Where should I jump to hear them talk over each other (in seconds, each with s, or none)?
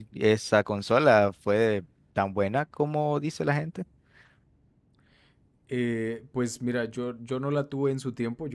none